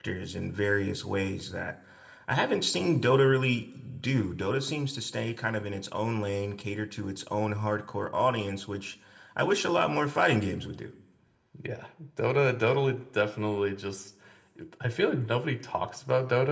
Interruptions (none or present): none